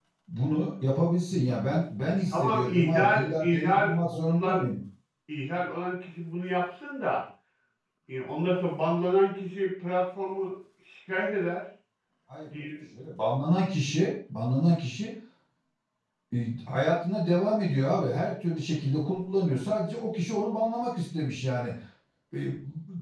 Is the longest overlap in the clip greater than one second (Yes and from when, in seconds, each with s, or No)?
Yes, from 2.3 s